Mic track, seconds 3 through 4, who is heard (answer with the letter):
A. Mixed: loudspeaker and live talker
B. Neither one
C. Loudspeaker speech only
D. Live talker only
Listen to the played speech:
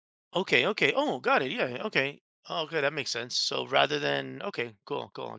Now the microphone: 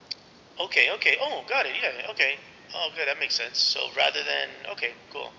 C